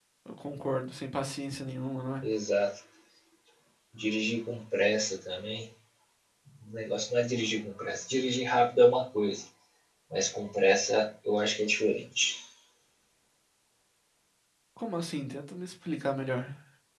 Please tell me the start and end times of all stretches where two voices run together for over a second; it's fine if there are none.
none

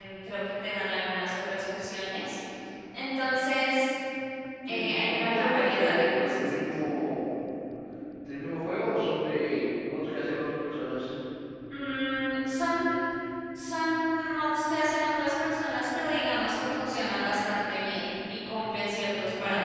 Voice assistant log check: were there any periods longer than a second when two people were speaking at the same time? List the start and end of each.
4.7-6.4

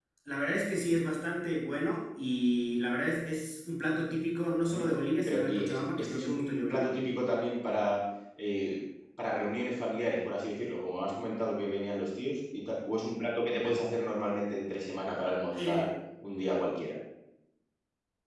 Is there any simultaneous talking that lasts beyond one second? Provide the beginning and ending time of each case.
5.3-6.9

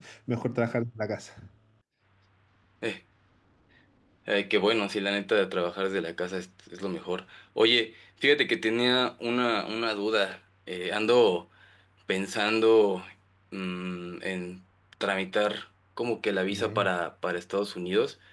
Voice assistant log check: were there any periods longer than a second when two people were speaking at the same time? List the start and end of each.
none

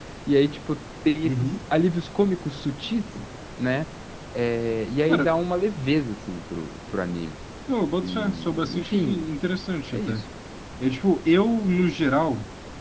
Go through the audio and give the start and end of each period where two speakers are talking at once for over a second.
8.0-9.3

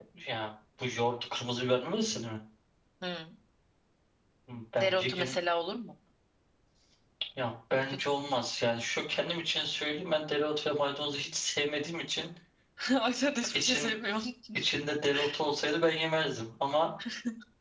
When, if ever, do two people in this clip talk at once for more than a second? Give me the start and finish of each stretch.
none

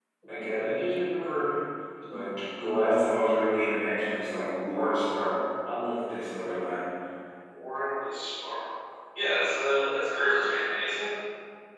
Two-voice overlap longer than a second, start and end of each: none

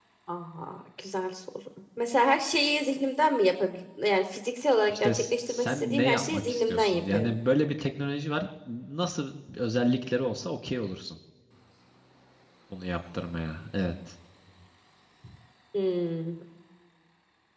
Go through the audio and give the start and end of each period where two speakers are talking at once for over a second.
4.9-7.3

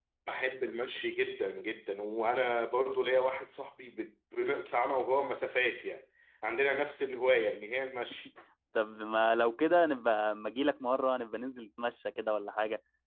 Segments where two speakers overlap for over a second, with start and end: none

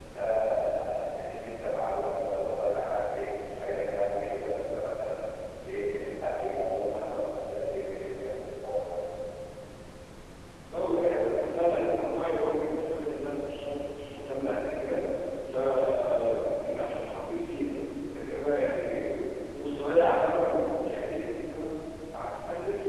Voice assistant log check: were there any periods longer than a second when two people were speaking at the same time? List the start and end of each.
none

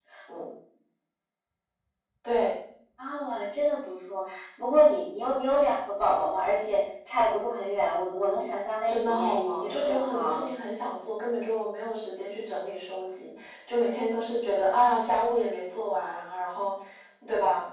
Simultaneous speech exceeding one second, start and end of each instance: 8.8-10.5

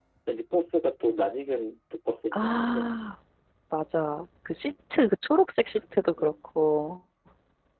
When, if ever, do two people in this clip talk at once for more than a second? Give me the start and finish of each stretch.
none

